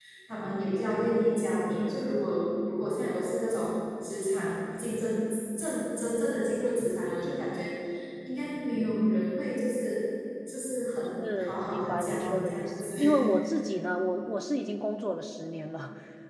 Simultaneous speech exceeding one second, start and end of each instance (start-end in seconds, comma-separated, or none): 11.3-13.0